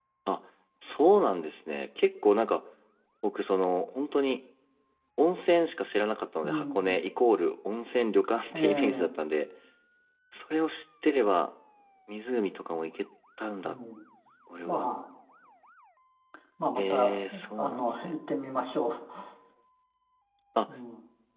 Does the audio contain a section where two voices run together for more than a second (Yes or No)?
Yes